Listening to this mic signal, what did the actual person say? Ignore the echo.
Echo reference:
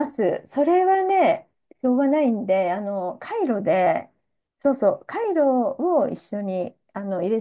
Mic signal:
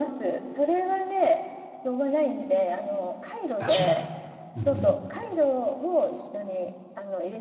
あ、しょうがない。うん

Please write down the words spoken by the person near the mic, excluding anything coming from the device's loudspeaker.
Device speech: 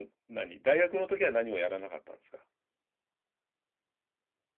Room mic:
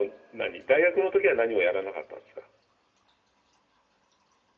none

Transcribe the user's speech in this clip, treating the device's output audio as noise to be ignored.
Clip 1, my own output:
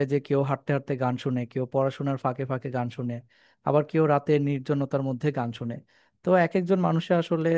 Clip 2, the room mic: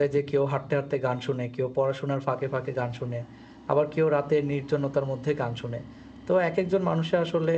none

